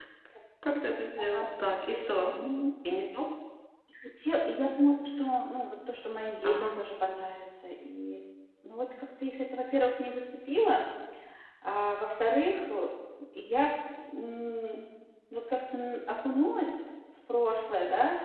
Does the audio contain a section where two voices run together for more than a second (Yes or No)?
No